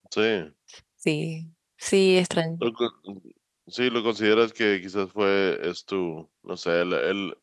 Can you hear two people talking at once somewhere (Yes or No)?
No